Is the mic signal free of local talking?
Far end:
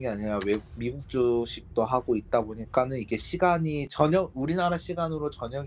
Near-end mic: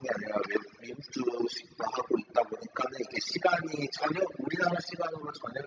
Yes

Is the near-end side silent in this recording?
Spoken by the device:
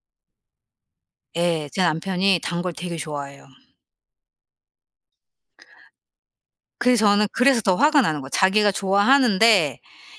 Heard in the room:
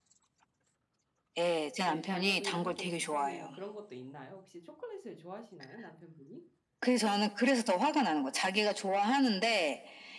No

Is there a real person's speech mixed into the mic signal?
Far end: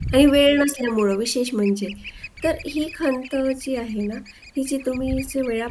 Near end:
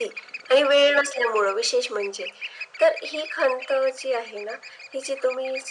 No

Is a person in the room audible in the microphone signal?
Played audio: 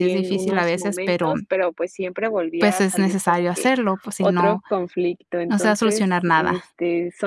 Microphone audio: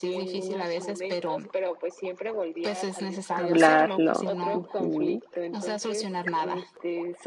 Yes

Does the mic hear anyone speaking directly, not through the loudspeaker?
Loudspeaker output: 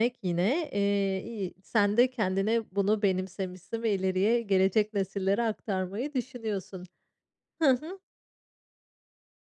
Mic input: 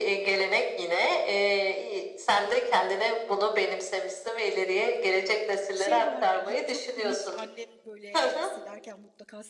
Yes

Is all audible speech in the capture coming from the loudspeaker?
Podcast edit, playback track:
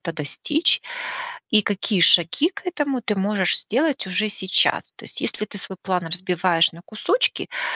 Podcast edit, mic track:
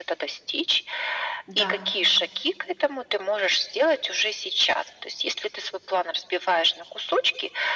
No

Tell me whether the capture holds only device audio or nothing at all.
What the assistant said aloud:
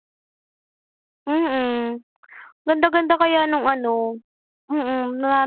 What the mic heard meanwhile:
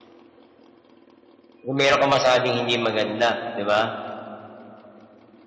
No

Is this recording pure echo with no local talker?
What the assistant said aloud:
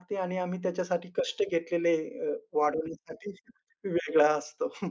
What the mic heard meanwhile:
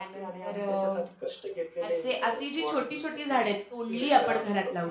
No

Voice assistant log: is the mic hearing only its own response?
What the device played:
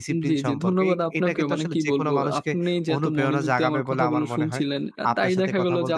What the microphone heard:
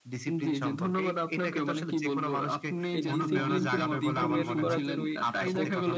No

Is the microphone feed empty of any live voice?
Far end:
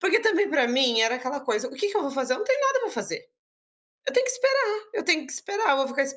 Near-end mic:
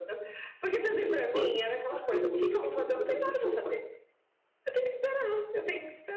No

